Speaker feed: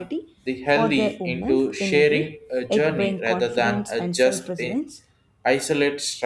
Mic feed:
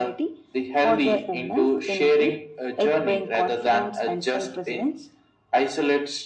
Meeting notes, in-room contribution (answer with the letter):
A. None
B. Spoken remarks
A